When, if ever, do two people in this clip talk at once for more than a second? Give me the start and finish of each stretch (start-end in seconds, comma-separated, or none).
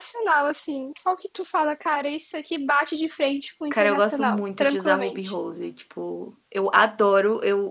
3.7-5.3